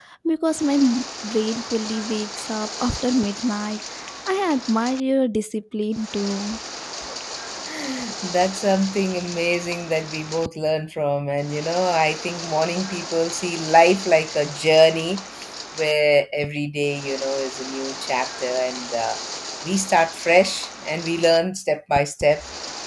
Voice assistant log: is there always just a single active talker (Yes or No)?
Yes